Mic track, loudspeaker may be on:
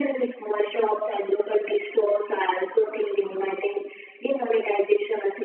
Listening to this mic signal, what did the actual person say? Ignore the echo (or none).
none